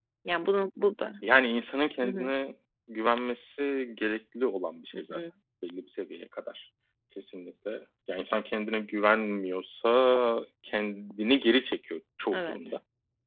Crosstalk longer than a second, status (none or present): none